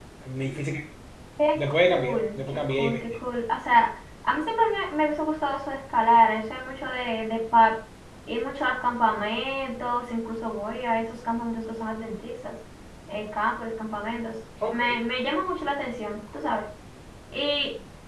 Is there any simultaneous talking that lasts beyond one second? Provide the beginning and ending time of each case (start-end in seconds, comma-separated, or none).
1.6-3.0